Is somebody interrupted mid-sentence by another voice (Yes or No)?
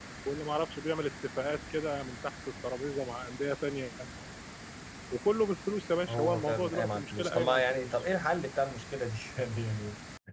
Yes